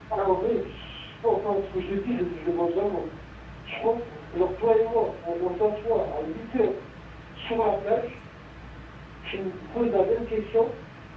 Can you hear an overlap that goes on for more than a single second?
No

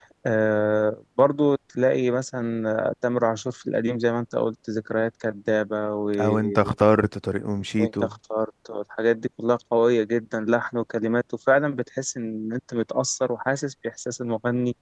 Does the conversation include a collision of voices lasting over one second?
No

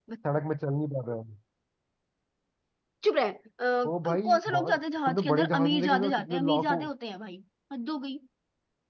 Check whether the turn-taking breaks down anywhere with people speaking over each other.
Yes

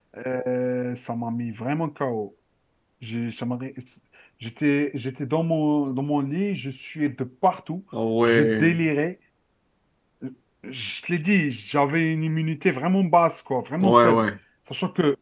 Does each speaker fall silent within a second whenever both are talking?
Yes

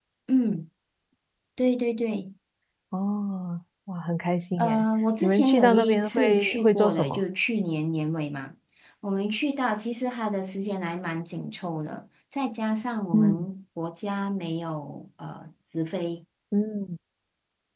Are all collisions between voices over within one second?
No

